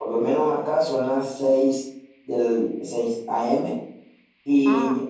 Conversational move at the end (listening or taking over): listening